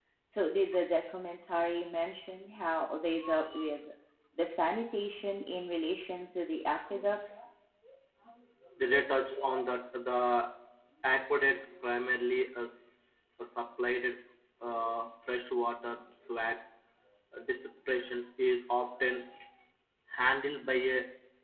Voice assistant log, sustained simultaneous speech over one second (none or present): none